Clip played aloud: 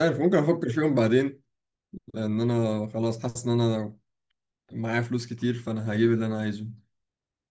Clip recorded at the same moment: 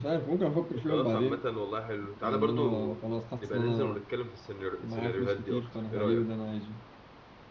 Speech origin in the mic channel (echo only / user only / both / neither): both